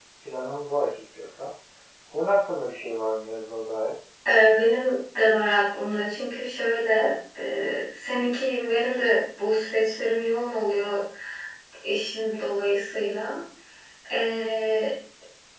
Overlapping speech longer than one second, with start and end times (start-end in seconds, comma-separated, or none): none